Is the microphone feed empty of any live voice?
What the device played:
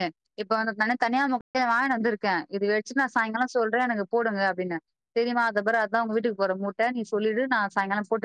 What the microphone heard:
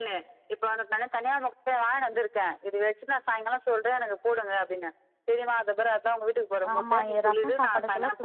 No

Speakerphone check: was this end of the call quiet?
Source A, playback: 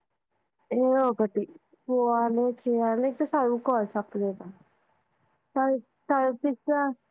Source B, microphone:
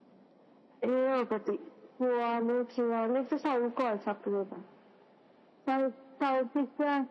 Yes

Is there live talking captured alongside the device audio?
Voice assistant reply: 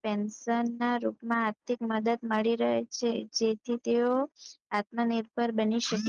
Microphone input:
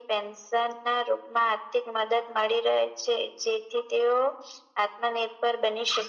No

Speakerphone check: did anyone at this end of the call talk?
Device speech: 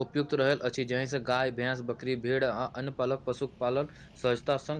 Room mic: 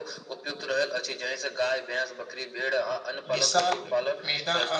Yes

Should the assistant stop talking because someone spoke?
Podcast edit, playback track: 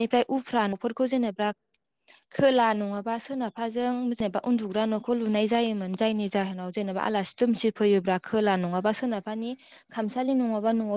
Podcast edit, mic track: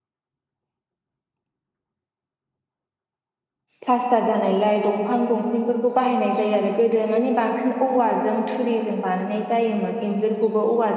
Yes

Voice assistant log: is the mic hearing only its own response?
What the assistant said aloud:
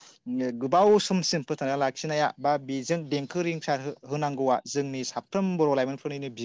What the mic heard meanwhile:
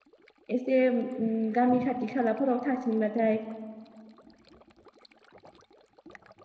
No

